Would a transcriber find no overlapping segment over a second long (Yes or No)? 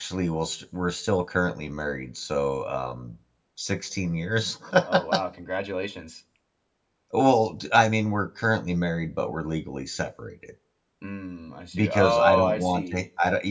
No